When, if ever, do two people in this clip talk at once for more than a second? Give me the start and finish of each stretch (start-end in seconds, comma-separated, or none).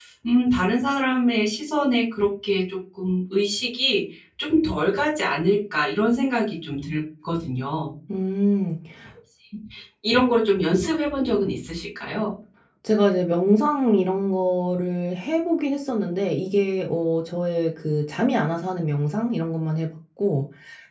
none